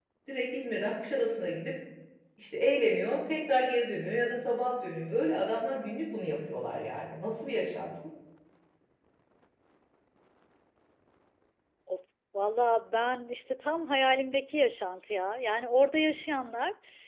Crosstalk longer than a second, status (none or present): none